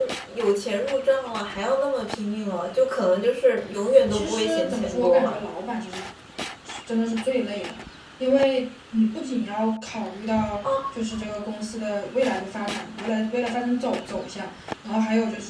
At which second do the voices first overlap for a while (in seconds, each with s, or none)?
4.1 s